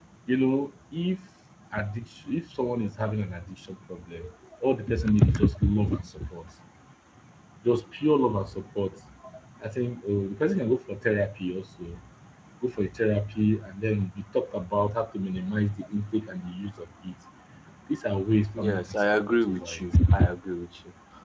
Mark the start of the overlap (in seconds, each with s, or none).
18.5 s